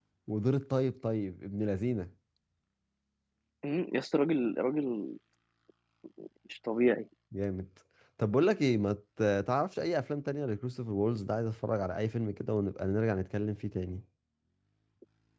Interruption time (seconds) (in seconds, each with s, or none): none